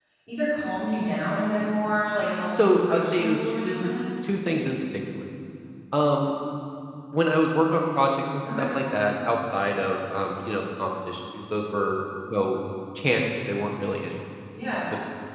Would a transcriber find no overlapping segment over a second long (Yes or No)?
No